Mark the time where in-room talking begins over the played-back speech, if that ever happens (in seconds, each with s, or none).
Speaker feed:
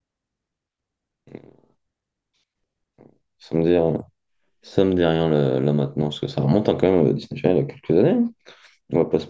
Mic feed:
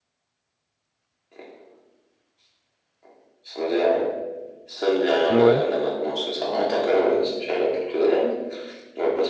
5.3 s